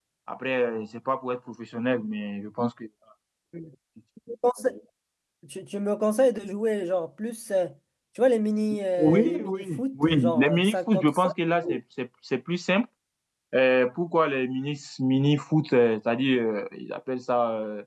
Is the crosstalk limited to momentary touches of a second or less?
No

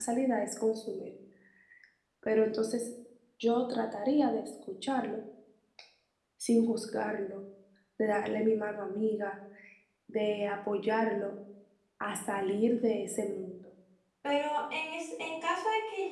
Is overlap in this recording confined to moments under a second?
Yes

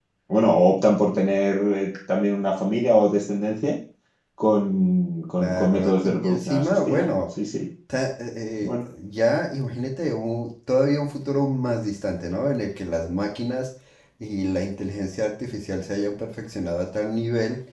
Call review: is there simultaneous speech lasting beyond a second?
Yes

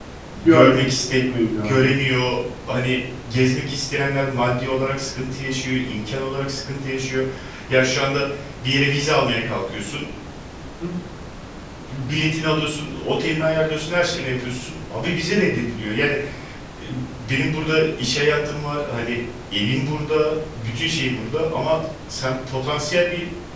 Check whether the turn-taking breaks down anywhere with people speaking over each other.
Yes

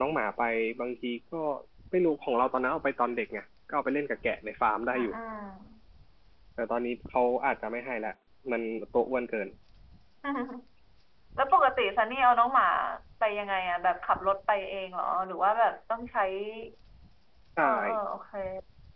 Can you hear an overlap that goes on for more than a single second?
No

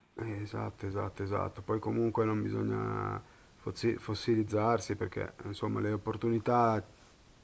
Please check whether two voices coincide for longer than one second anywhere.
No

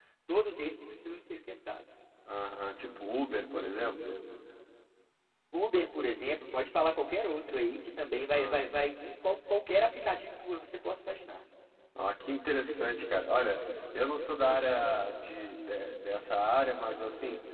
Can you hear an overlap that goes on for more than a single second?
No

